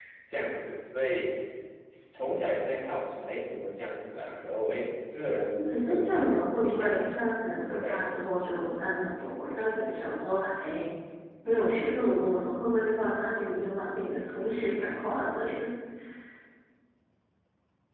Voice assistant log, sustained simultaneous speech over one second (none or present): present